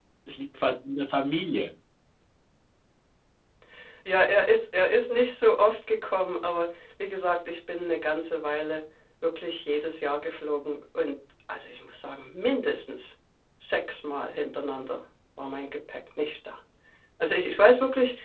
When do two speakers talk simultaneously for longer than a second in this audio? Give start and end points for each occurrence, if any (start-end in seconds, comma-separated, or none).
none